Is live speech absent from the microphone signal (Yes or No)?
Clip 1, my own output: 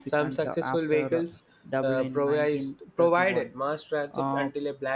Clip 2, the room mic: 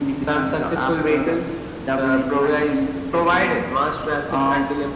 Yes